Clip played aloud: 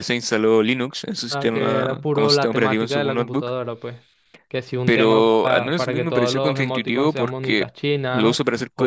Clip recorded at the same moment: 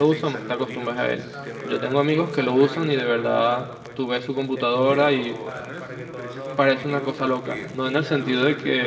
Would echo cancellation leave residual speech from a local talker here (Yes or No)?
Yes